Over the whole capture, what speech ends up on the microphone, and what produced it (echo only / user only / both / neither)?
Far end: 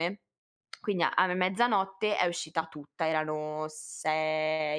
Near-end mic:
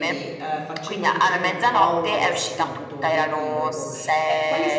both